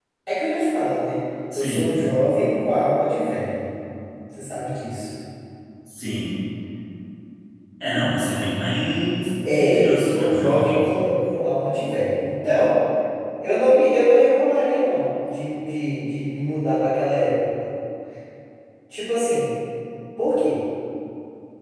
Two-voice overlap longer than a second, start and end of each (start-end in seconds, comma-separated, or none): 9.5-10.8